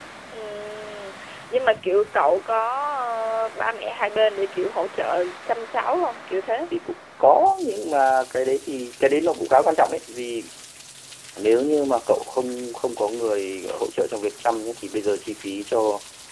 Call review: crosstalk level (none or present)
none